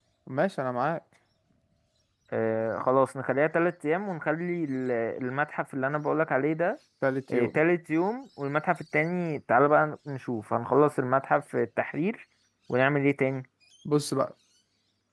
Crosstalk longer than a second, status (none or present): none